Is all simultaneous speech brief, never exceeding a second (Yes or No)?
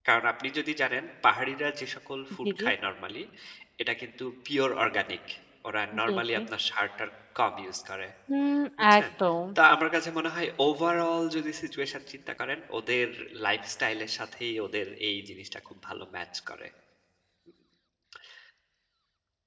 Yes